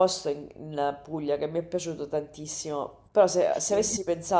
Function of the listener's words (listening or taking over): listening